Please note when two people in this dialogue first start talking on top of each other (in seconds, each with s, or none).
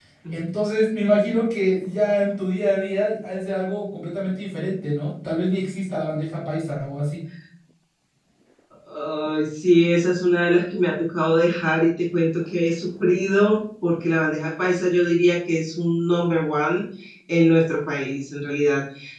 none